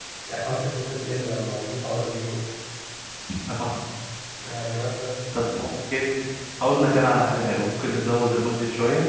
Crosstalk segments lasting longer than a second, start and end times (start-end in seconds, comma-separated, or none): none